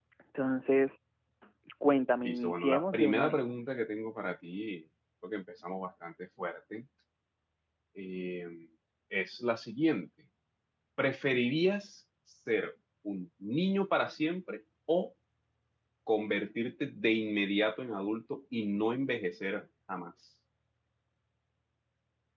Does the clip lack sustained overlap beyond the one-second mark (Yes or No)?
No